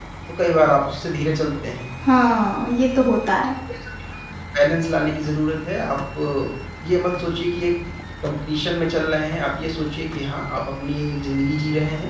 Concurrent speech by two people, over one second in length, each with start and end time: none

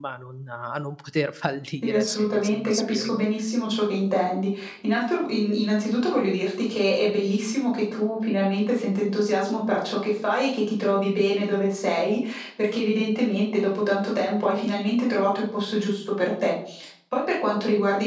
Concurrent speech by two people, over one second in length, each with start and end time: 1.8-3.2

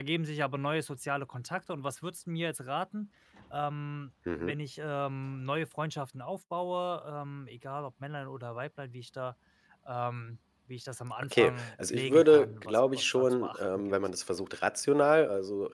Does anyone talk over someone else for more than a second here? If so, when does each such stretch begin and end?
11.3-13.9

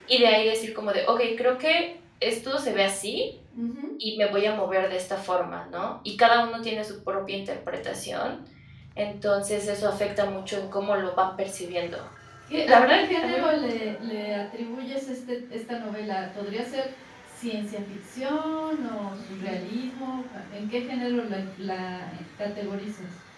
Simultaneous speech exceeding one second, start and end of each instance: 12.5-13.8

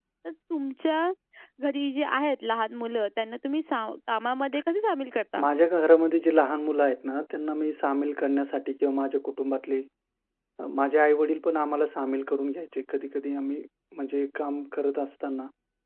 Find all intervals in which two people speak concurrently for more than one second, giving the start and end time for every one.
none

